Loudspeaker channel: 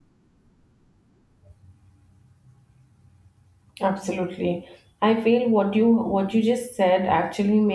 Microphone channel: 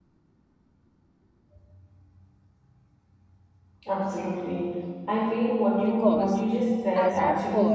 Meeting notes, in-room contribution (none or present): present